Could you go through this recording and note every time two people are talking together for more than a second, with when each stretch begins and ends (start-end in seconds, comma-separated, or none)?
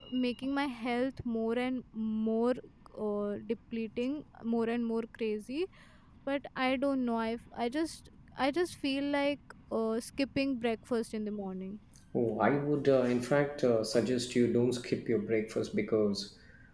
none